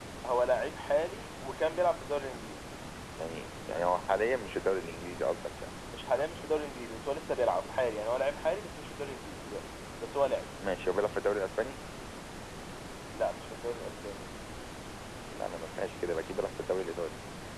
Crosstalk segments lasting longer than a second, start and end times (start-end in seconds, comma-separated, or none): none